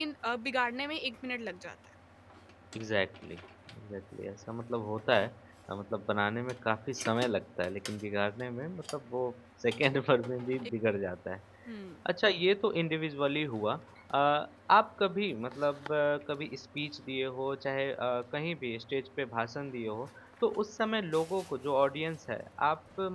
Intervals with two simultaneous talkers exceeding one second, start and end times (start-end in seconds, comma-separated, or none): none